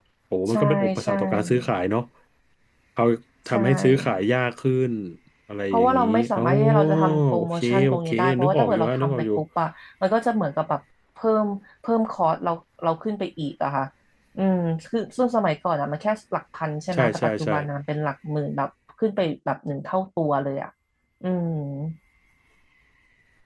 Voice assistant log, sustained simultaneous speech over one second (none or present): present